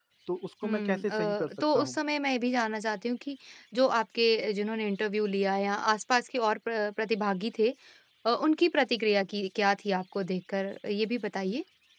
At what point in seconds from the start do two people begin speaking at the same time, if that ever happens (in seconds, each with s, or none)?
0.6 s